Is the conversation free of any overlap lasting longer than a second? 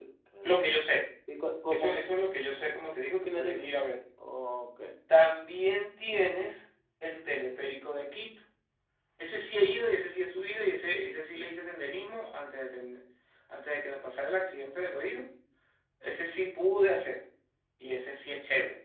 Yes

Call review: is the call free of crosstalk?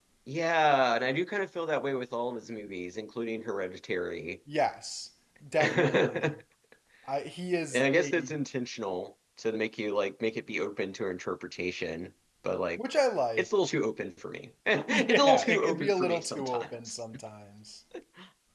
No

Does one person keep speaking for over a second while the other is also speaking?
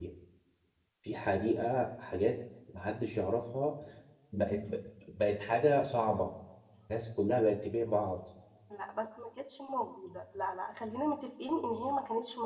No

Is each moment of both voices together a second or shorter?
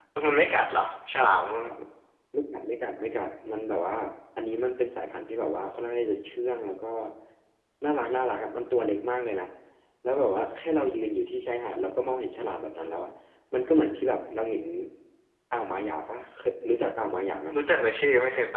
Yes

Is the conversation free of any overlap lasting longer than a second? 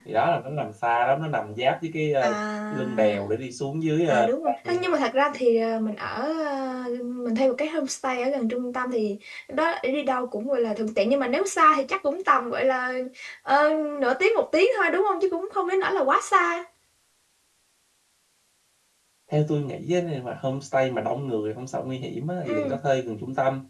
Yes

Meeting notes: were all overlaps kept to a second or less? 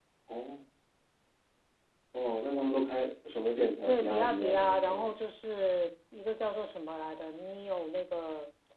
No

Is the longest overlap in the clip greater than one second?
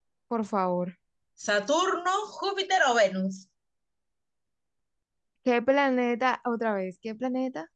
No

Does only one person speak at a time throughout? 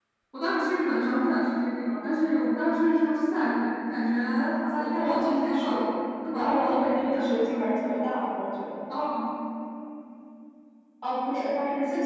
No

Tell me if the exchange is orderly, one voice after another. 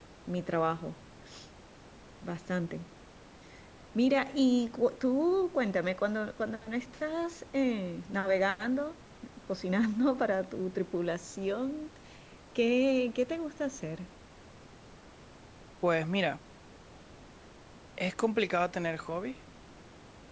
Yes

